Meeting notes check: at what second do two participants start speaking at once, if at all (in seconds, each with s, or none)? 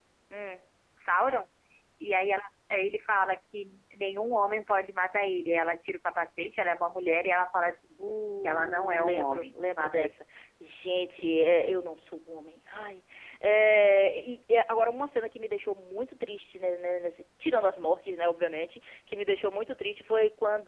8.4 s